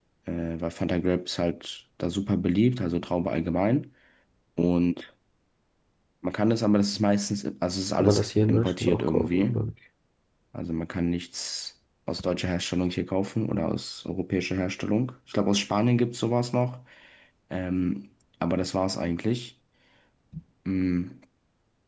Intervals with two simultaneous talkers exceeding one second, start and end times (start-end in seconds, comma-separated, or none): 7.9-9.6